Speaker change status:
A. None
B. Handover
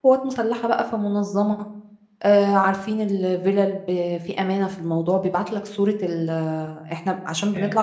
A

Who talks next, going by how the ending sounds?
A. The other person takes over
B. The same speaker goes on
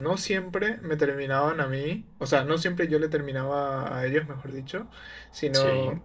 B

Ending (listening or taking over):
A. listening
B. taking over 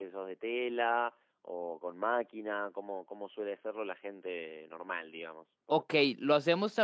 B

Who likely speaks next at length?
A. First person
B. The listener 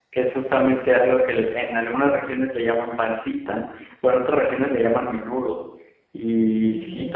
A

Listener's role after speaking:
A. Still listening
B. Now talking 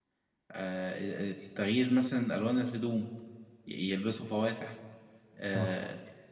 A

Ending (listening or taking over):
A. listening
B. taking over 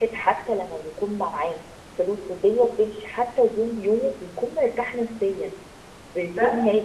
A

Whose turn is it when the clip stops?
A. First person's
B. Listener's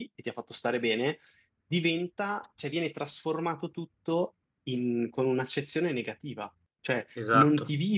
A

